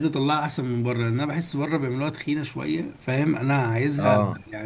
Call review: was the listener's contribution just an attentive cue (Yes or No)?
Yes